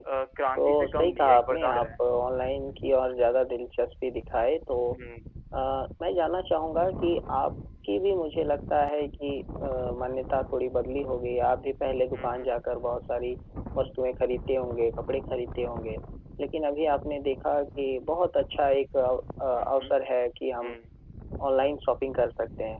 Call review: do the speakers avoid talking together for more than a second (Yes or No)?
No